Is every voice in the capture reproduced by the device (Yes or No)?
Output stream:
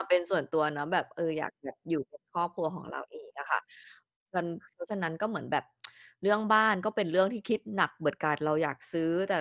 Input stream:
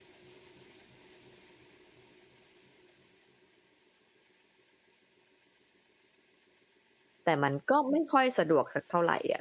No